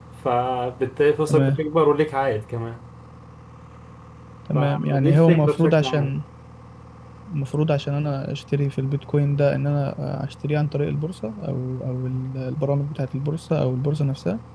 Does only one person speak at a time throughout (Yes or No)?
No